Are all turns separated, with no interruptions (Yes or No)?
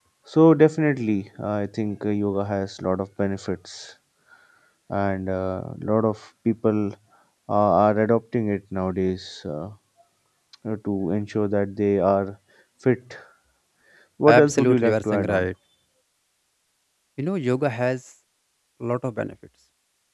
No